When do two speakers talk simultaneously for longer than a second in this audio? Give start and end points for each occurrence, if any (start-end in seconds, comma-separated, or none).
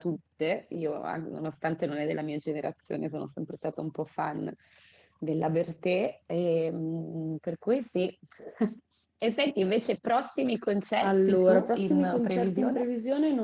11.0-12.8